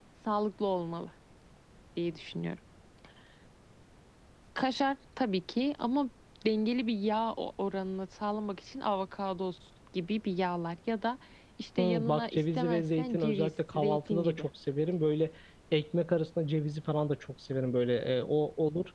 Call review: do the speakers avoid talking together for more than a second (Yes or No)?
No